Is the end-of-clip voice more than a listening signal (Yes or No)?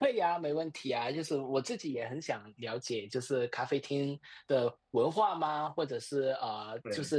No